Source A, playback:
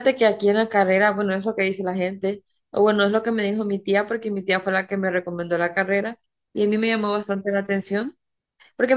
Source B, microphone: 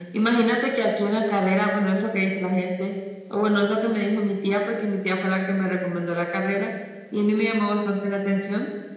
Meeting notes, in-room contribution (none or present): none